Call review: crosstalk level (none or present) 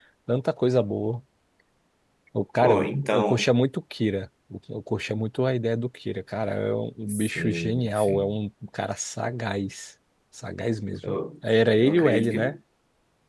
present